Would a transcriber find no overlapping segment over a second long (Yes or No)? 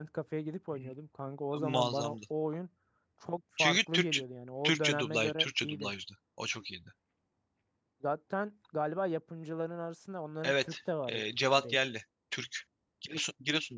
No